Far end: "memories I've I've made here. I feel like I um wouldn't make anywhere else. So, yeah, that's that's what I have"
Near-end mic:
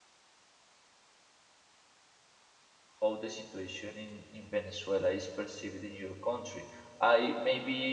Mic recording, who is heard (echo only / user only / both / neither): user only